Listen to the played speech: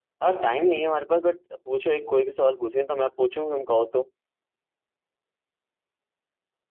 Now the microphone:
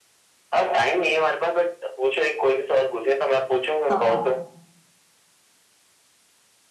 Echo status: present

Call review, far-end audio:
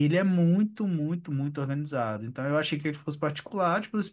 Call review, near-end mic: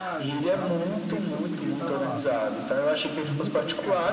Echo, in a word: present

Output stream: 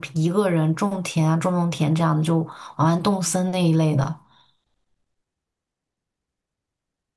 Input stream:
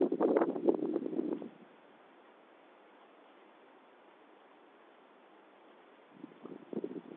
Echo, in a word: none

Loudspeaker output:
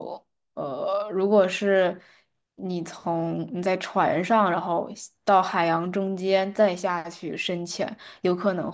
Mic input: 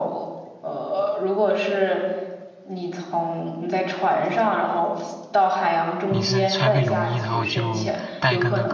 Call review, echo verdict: present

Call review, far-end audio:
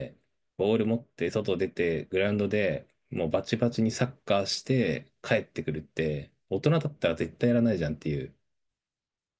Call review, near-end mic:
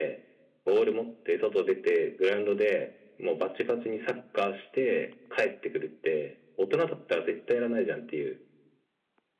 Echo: present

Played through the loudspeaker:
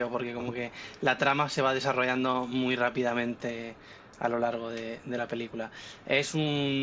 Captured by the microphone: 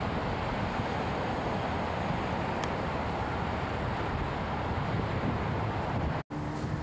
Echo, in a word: none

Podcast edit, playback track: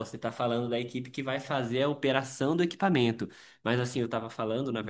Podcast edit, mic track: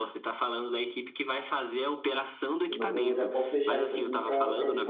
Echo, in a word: present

